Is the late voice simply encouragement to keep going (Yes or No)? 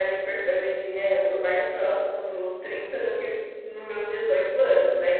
No